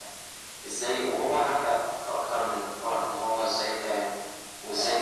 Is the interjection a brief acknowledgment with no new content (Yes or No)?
Yes